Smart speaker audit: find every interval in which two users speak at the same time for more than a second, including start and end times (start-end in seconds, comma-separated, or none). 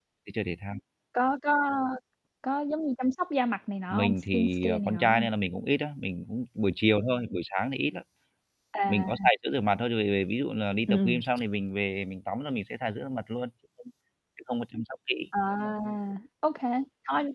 3.9-5.3